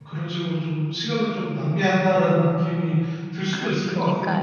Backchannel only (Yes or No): No